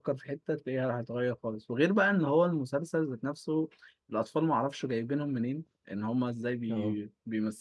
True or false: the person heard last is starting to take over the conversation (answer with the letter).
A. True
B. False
B